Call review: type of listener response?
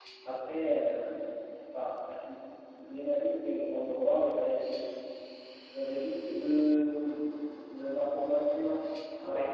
listening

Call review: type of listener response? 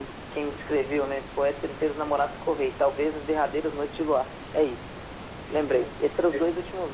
listening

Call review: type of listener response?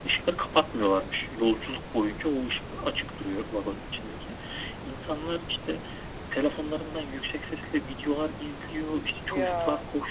listening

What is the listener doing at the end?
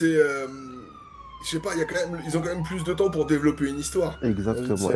taking over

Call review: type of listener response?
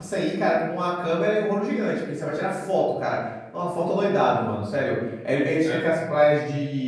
listening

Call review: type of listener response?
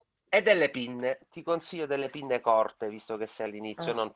listening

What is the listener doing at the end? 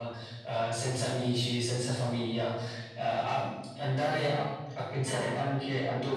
listening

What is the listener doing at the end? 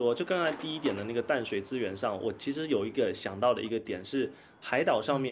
listening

